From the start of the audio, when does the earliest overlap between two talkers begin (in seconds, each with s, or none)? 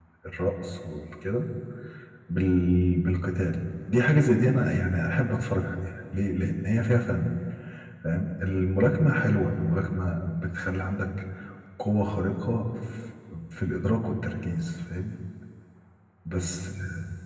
none